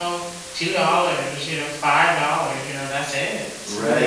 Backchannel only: No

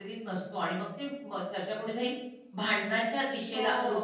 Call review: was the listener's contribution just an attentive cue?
Yes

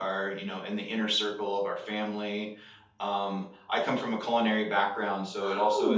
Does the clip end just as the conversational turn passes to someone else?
No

